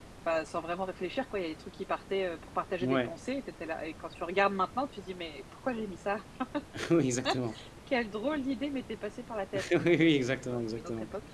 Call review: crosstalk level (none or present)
present